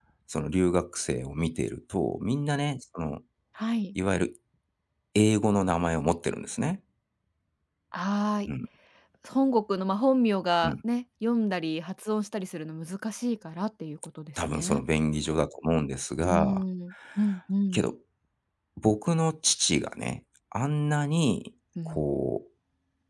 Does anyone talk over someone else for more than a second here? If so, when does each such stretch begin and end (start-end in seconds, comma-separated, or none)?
none